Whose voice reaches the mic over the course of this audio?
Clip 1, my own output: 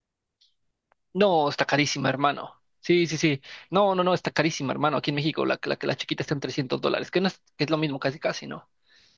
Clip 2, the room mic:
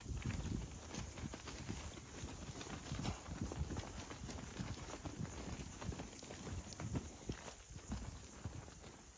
neither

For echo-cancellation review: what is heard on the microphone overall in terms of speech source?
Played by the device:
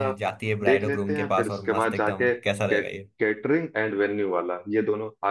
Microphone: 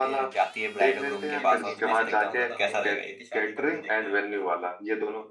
both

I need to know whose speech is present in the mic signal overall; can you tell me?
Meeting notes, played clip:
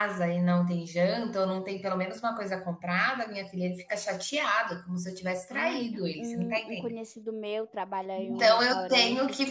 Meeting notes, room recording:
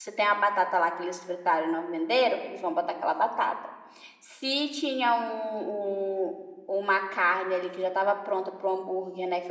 user only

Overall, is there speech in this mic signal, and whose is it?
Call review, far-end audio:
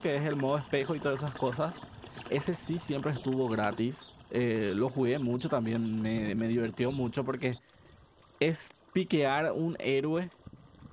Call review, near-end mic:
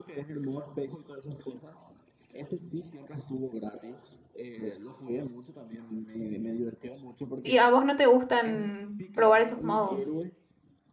both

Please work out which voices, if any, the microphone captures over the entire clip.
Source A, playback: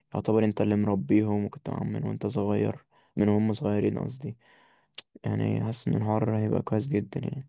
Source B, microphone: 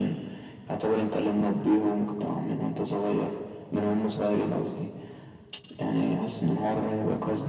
echo only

